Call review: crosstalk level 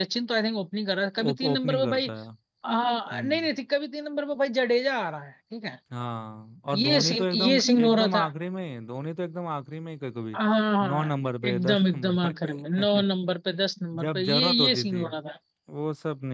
present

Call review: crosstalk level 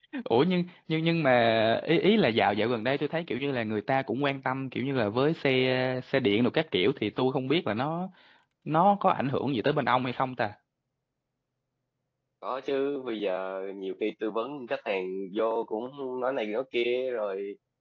none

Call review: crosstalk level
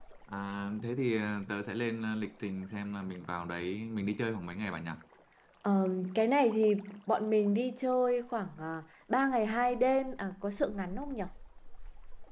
none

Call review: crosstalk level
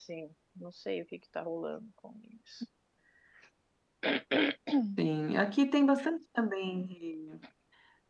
none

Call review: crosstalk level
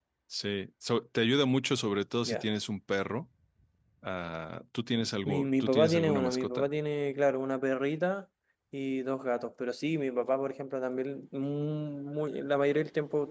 present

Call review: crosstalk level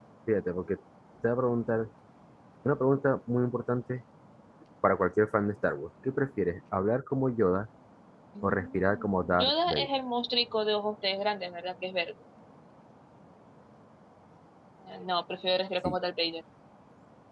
present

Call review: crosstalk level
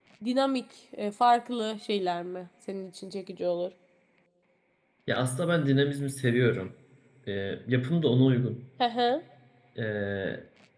none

